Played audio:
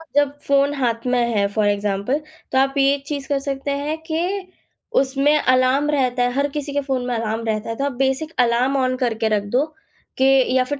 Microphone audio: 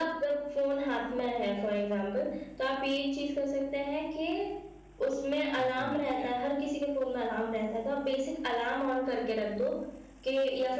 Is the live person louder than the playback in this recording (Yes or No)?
No